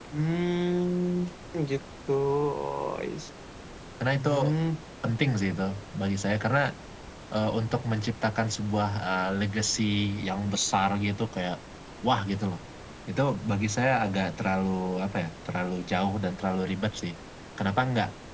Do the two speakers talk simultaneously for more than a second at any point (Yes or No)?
No